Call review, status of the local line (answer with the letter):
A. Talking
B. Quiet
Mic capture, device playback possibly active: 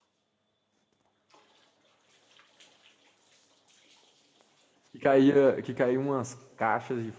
A